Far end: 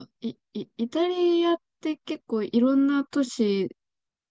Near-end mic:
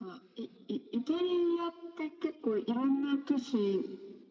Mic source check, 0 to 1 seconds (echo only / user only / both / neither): echo only